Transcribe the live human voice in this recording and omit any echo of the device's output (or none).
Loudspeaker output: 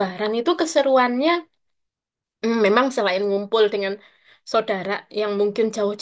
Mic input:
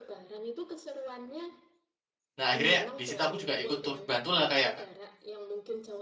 Nah, akhirnya di situ aku juga ikut turut bantulah kayak